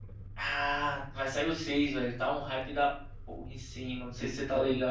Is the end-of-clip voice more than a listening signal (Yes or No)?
Yes